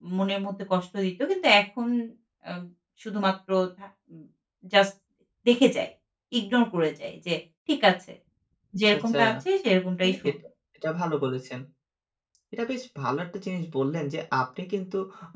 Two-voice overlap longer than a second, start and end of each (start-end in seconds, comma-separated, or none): none